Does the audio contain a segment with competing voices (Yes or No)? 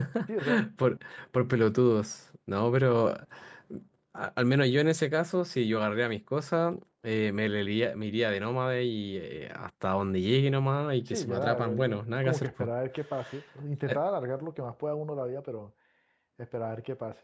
Yes